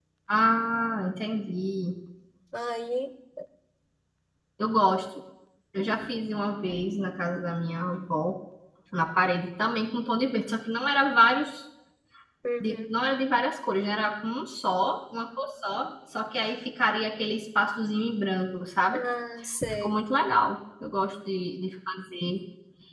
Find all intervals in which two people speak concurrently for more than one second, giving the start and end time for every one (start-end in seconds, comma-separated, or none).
none